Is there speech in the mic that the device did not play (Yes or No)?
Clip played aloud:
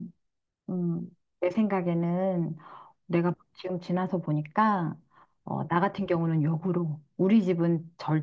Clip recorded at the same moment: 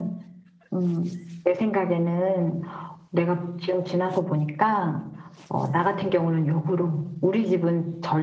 No